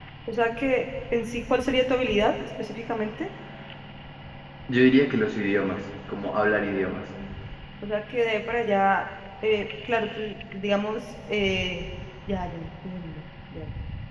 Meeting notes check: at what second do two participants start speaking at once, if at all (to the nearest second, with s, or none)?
none